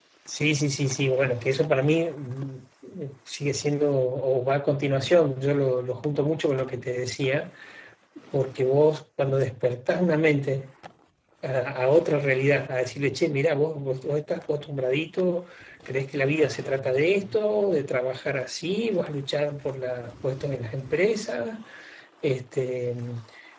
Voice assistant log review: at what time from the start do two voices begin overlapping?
none

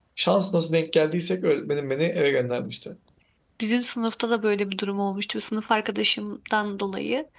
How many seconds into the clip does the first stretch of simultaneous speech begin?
none

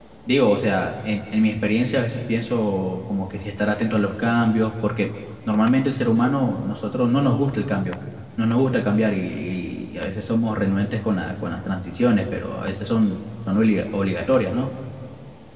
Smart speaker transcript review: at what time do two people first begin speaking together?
none

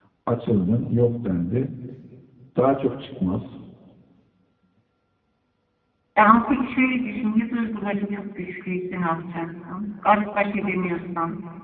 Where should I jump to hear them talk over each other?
none

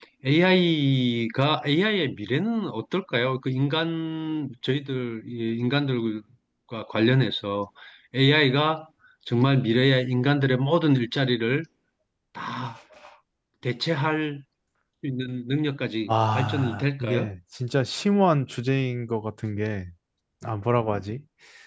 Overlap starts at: 16.1 s

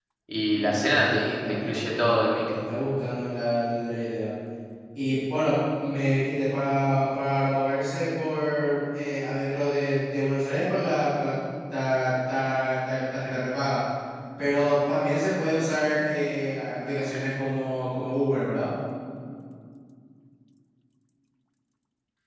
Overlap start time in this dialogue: 0.5 s

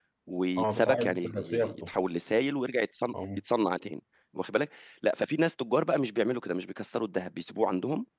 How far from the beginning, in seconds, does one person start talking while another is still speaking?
0.6 s

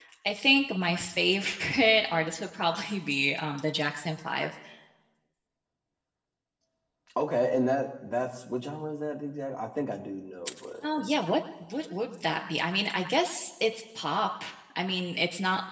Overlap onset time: none

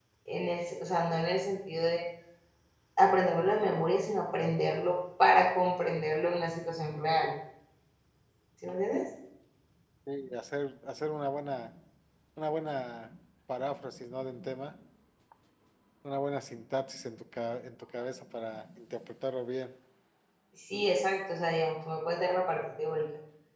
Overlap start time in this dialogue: none

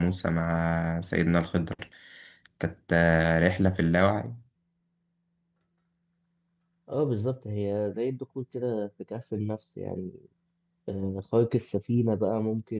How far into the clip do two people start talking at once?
none

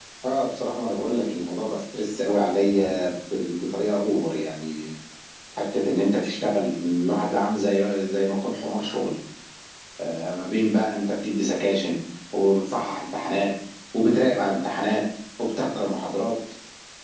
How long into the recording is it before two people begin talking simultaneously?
none

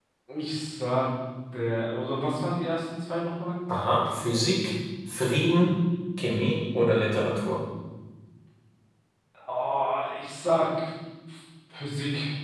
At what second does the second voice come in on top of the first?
none

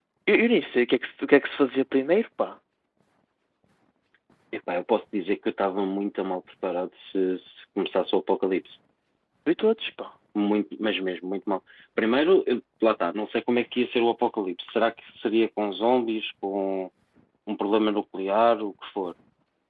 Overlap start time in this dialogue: none

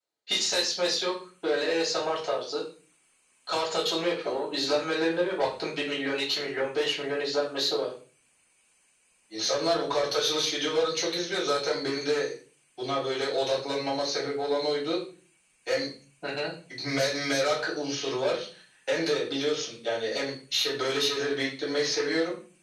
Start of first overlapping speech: none

